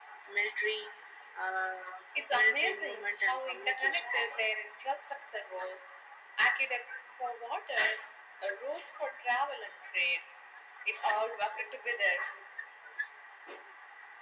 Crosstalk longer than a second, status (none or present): present